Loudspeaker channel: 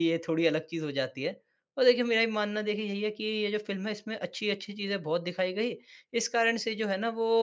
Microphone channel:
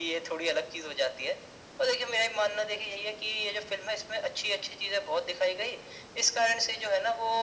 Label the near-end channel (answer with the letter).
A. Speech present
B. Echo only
B